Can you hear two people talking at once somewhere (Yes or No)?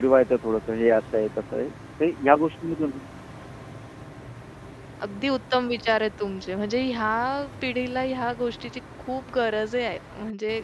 No